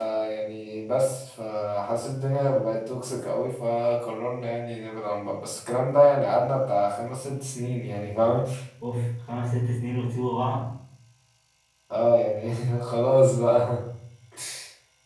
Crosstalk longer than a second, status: none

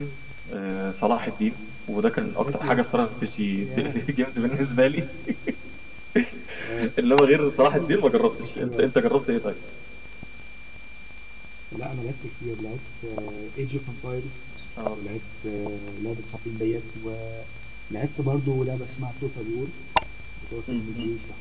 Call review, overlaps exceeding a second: none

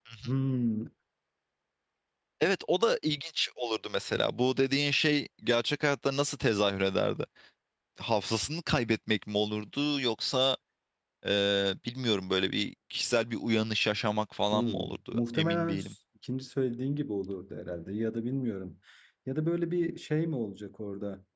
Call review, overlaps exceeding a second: present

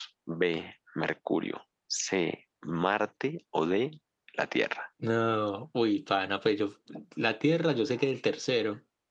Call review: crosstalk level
none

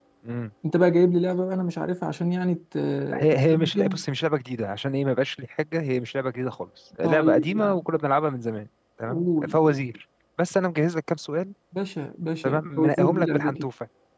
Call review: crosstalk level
present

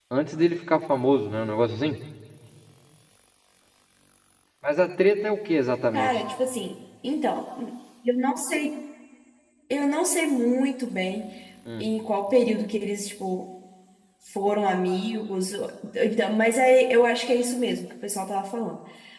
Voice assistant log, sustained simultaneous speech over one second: none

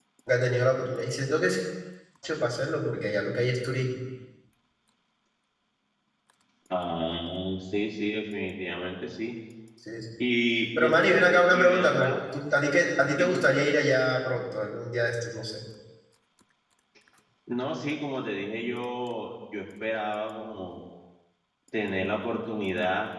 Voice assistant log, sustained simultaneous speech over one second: present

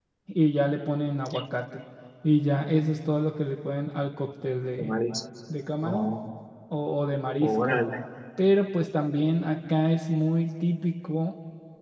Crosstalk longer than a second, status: none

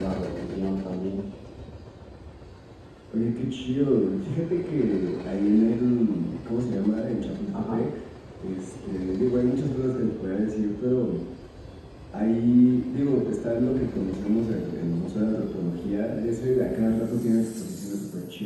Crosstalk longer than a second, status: none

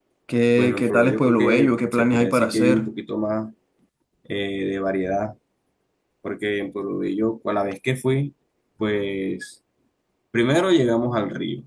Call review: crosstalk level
present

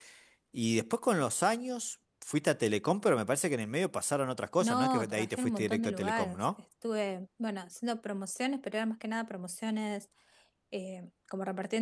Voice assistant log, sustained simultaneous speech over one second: present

